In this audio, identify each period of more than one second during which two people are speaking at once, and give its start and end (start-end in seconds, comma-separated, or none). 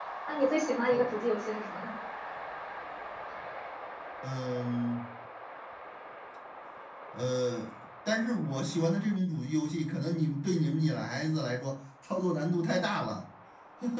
none